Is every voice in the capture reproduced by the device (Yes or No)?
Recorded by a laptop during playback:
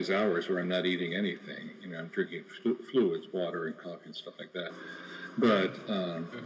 No